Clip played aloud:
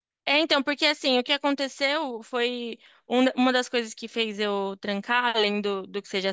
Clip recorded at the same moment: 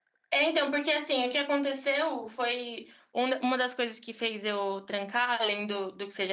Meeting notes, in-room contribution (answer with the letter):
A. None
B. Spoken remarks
A